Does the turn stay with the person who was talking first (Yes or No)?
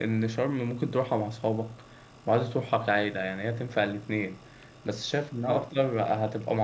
Yes